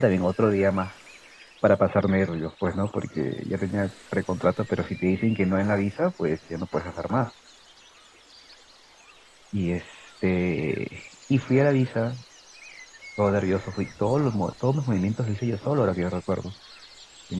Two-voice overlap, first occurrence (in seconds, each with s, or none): none